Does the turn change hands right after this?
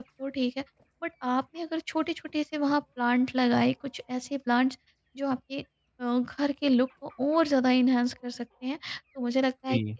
No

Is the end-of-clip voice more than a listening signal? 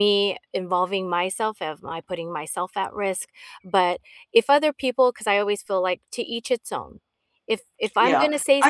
Yes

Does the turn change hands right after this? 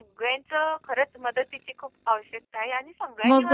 Yes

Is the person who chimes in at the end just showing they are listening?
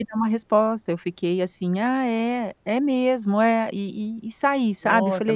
No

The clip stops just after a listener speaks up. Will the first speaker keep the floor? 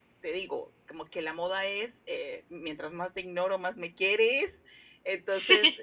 Yes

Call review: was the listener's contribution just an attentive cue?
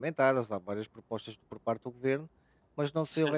Yes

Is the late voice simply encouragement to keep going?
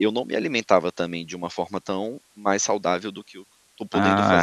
No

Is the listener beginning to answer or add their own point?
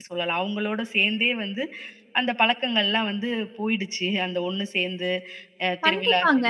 Yes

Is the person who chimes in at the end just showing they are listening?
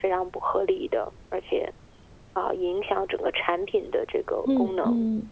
No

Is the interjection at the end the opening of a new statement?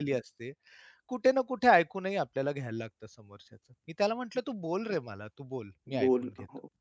Yes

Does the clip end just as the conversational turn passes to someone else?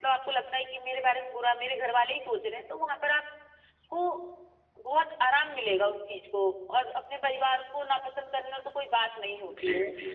Yes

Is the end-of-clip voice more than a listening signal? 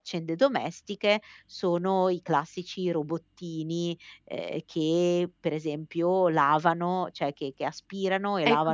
Yes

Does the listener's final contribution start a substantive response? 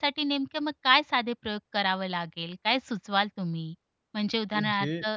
No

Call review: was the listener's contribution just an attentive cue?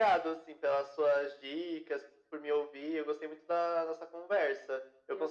Yes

